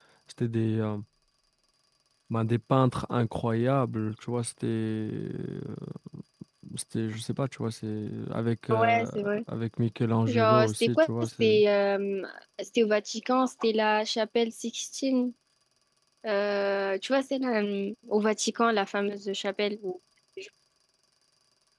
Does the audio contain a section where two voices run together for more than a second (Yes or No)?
Yes